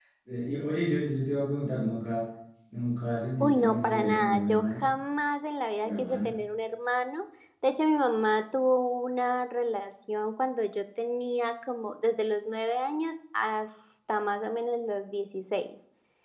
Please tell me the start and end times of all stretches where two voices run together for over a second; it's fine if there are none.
3.4-4.8

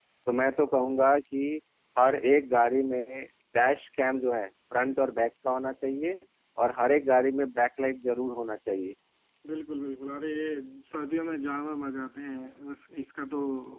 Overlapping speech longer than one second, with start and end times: none

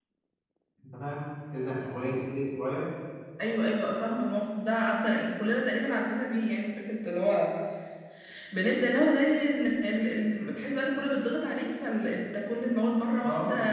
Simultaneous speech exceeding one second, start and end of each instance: none

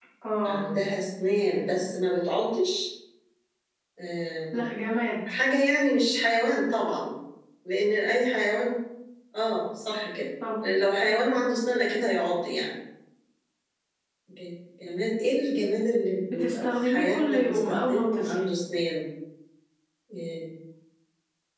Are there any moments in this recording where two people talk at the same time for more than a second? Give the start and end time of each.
16.3-18.4

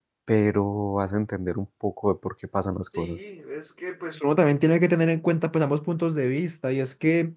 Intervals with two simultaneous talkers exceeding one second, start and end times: none

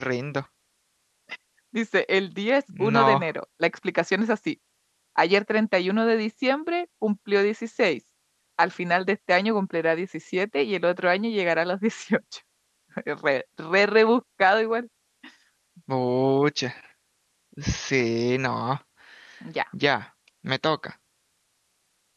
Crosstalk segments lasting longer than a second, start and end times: none

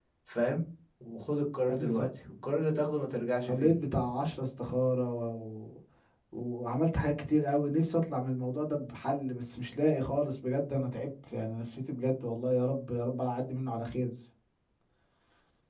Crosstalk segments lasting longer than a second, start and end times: none

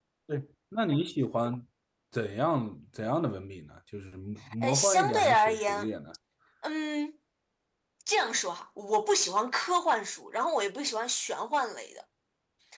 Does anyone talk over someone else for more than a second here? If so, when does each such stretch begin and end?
4.6-5.9

